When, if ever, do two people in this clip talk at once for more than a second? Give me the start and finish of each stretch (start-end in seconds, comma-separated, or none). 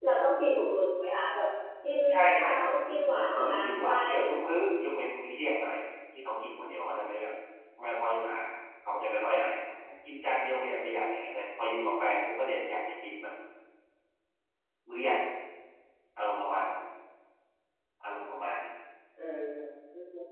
2.4-4.5